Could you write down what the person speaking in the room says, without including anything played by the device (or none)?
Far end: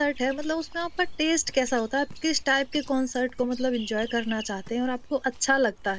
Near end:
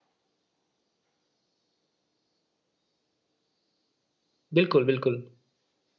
बिल्कुल, बिल्कुल।